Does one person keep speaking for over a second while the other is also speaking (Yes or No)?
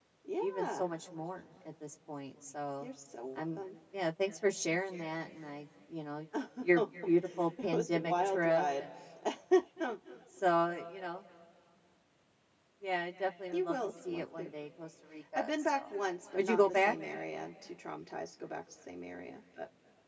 Yes